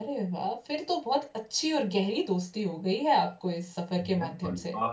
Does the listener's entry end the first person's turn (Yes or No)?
Yes